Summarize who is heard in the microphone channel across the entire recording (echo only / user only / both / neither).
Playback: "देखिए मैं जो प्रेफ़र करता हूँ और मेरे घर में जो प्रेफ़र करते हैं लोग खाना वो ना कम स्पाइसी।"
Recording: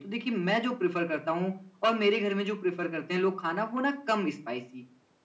echo only